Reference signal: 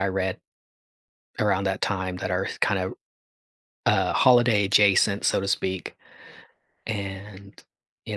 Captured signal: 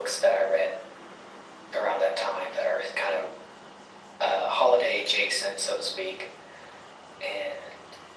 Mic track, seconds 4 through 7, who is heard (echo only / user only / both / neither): echo only